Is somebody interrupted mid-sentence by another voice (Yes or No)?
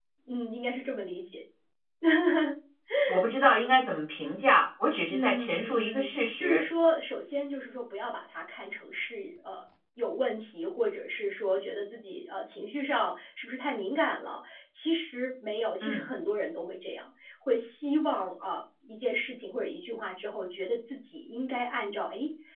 Yes